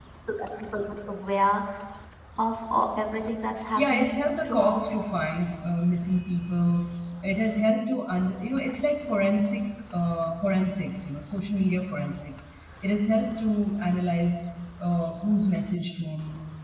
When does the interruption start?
3.8 s

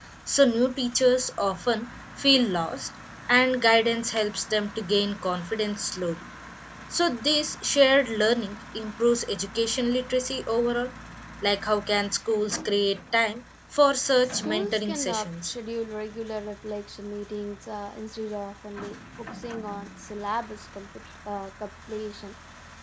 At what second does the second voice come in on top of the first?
14.2 s

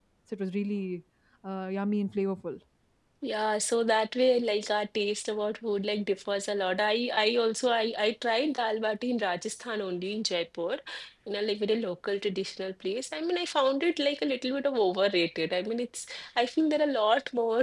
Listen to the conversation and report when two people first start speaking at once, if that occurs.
none

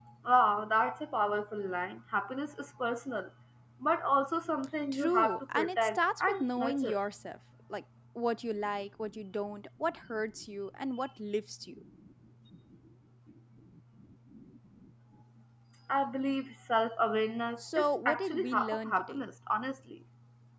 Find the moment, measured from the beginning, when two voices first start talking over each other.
4.9 s

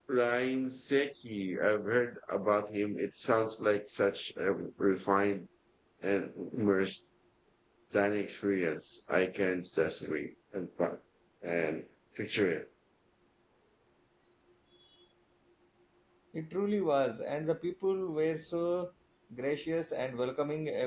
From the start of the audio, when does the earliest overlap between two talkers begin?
none

